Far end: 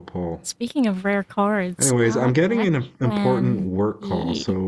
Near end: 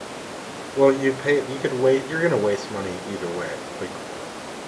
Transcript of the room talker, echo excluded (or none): Well, you pay you could wait you're gonna waste money either way. Like